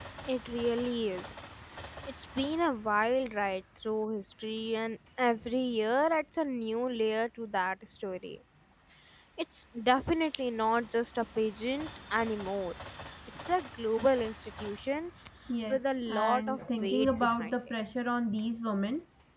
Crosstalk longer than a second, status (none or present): present